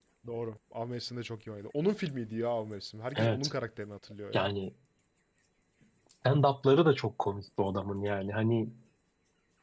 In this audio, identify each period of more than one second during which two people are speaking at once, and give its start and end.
none

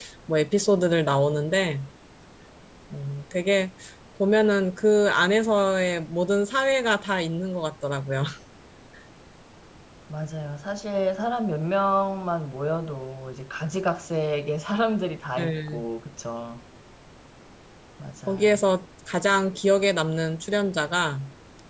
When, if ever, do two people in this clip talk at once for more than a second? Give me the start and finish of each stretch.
none

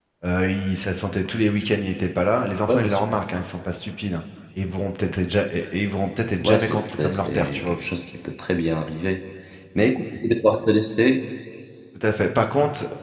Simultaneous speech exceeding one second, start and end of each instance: 6.4-7.8

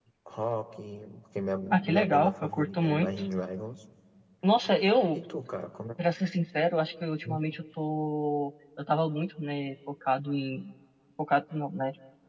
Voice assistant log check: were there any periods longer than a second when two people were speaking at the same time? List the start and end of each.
1.7-3.1

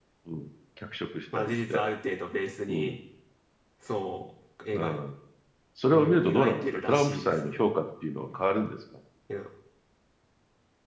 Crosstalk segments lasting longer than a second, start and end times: 5.9-7.6

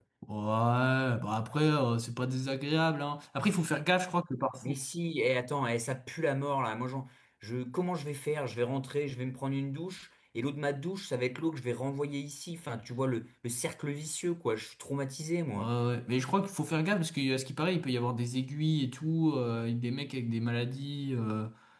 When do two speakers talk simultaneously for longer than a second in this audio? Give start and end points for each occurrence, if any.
none

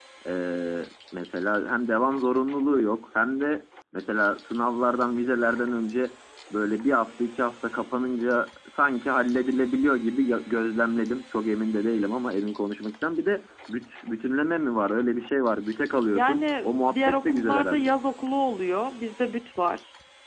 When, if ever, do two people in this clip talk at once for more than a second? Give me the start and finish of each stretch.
16.1-17.9

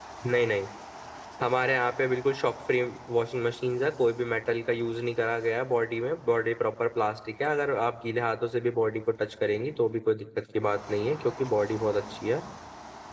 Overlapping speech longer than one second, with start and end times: none

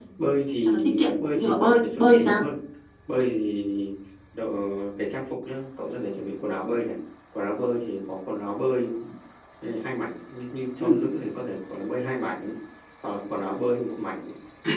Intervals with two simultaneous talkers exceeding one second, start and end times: 0.6-2.4

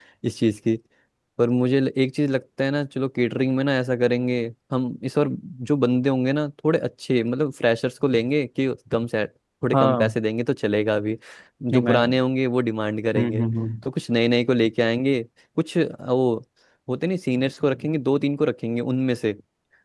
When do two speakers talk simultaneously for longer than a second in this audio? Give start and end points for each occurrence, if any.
none

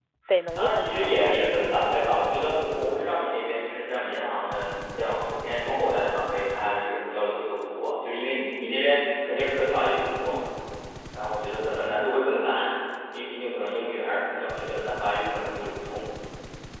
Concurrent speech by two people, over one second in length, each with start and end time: 0.5-2.1

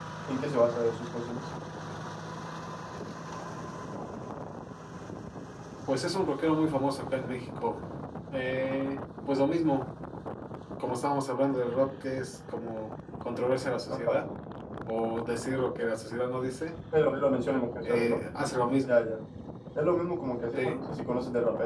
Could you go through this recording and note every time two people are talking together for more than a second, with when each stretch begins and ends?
none

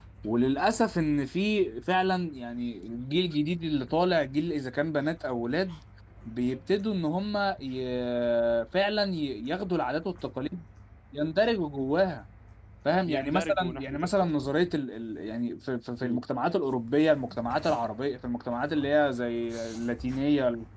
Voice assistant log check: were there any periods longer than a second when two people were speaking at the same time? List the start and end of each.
13.1-14.4

